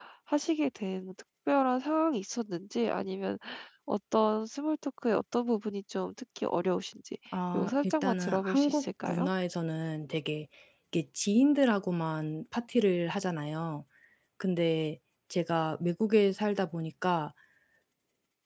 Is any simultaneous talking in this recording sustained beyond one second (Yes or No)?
Yes